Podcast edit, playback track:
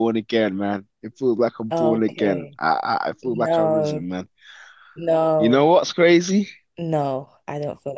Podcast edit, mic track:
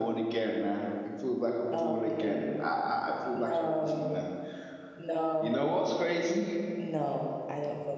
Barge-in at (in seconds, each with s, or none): none